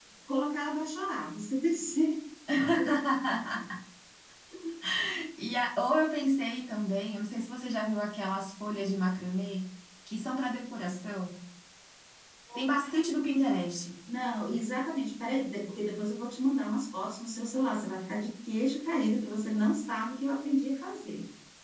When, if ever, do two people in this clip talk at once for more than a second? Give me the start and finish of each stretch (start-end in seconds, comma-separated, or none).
none